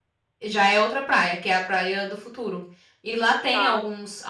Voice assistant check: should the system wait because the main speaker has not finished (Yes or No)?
Yes